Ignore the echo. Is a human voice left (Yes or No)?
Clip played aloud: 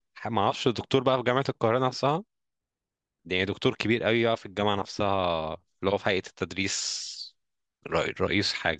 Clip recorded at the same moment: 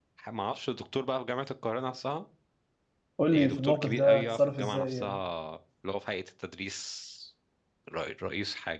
Yes